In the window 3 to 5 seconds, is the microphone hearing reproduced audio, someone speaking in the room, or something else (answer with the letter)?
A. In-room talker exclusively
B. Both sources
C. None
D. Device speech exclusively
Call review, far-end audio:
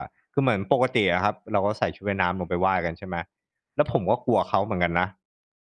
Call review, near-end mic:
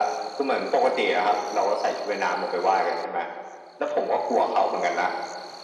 D